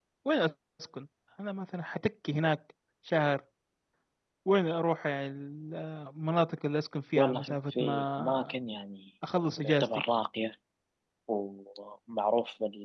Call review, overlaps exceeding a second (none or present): present